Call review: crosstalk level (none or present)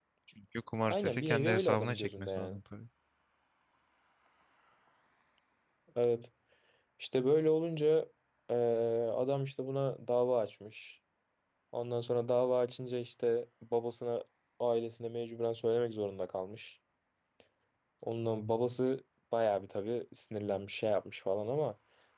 present